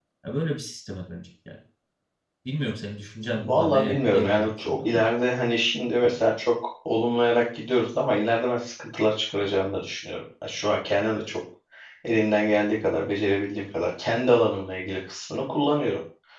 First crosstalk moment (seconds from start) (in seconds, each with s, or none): 3.3 s